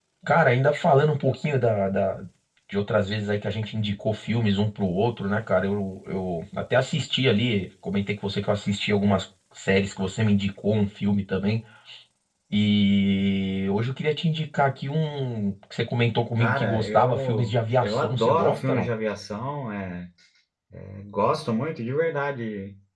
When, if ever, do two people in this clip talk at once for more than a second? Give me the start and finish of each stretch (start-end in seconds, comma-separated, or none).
16.4-18.9